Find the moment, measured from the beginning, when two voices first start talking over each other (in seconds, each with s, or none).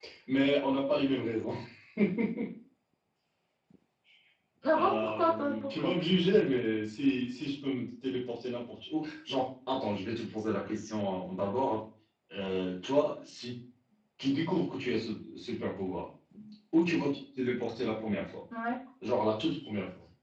4.7 s